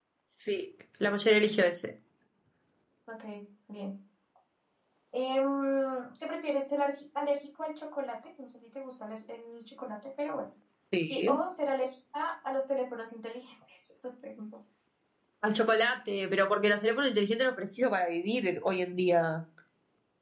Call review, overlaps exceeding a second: none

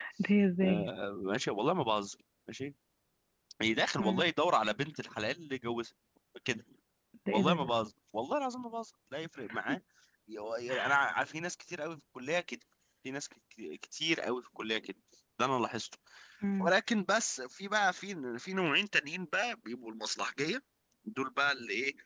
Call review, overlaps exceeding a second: none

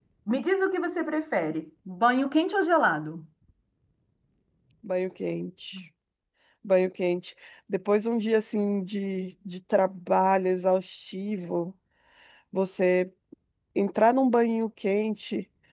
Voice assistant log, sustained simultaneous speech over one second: none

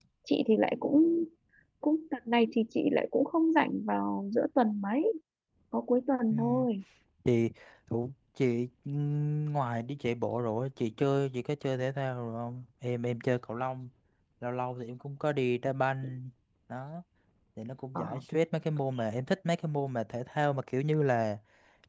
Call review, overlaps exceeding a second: none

